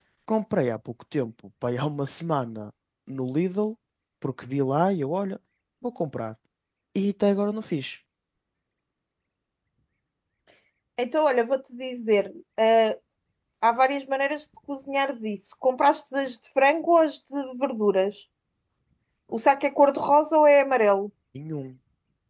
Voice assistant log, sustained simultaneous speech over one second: none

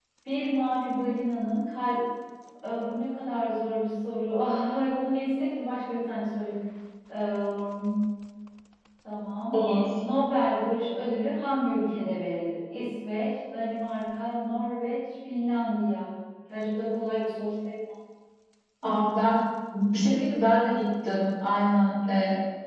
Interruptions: none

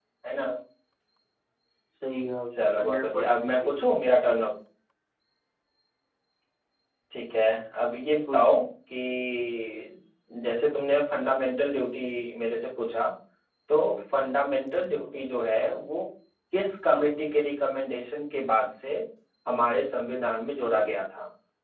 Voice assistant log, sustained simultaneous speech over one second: present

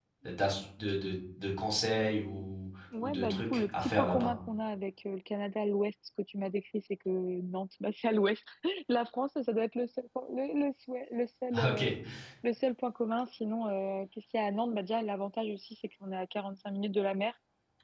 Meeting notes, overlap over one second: present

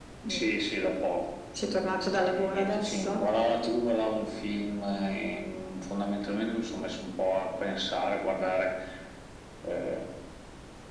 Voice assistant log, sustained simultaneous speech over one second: present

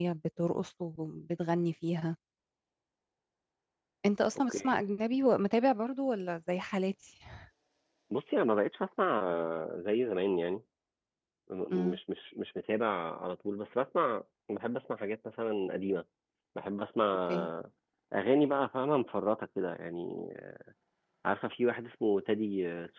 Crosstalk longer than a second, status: none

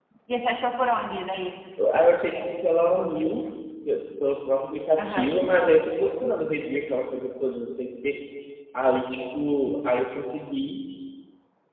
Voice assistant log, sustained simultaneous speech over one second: none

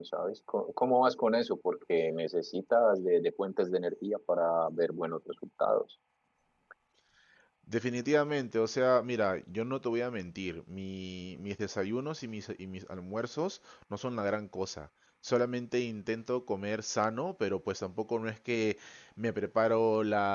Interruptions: none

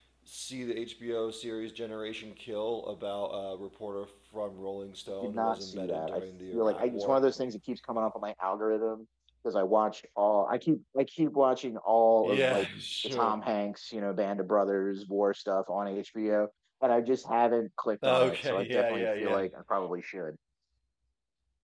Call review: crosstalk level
present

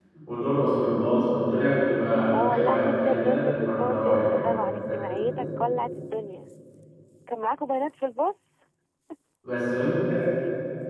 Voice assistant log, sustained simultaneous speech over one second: present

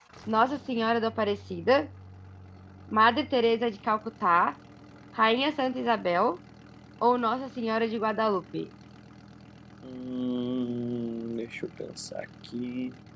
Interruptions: none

